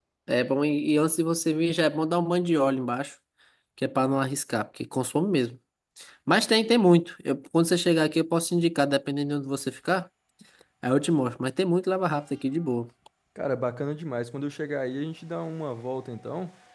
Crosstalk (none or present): none